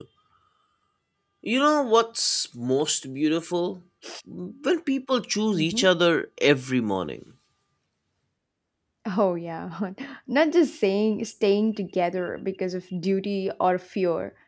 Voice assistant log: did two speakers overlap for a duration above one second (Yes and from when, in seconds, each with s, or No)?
No